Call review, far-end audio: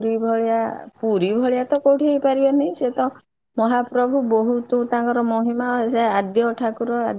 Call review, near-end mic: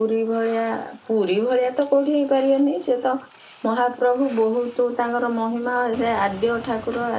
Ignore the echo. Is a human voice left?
No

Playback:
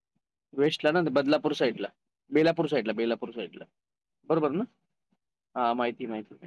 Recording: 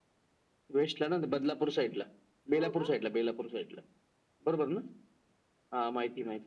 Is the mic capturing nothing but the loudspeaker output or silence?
No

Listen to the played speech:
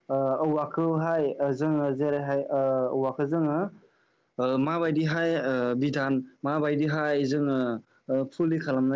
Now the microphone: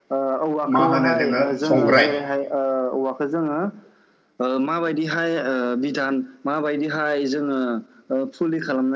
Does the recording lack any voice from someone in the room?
No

